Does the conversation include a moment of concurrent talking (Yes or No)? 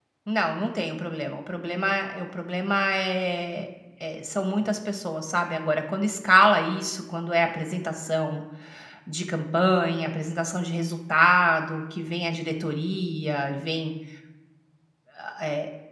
No